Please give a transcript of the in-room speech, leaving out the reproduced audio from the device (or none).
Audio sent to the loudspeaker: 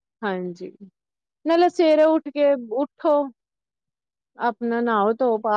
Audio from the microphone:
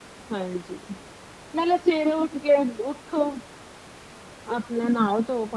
none